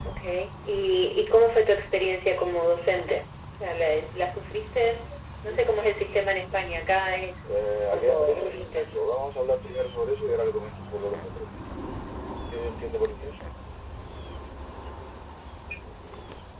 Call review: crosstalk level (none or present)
present